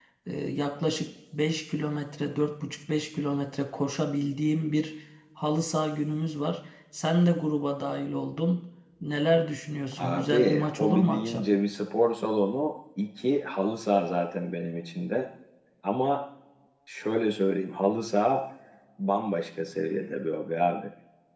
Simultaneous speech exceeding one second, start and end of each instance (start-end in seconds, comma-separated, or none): 10.0-11.4